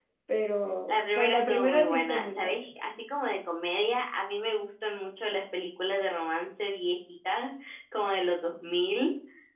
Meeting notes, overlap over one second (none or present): present